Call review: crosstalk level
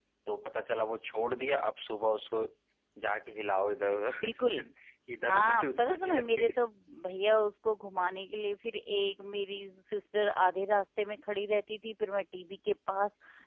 present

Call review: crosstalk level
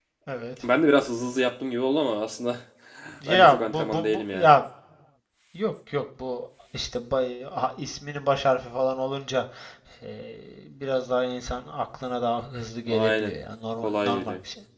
present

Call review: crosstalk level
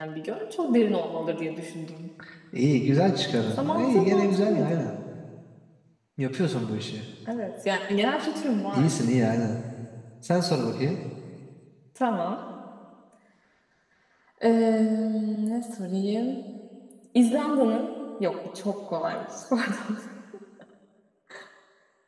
present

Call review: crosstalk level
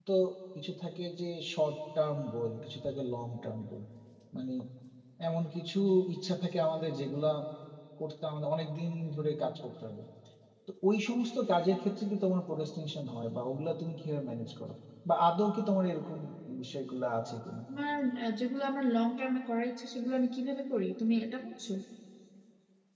none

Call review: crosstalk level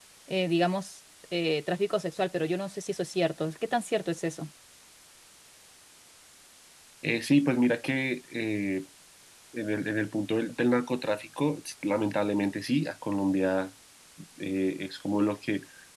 none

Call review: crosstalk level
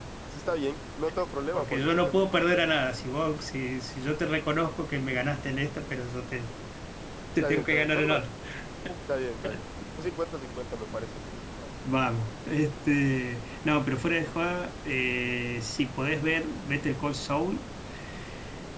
present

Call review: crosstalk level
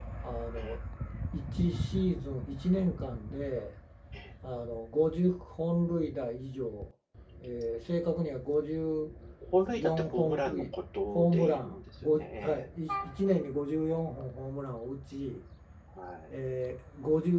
present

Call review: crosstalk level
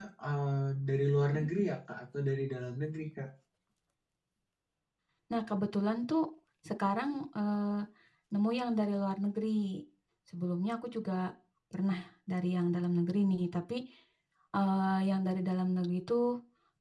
none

